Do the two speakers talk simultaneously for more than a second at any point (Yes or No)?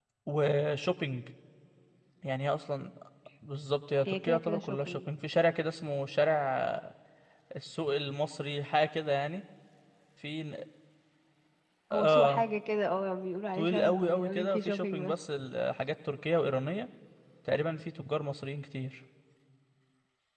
Yes